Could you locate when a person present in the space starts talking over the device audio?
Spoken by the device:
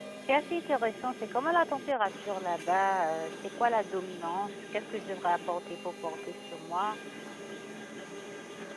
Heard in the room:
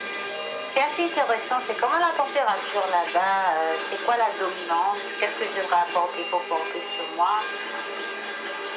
none

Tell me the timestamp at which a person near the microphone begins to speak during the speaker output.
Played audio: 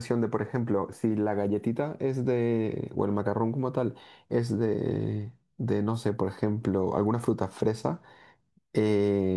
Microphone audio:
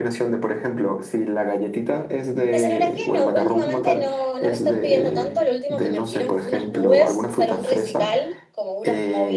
3 s

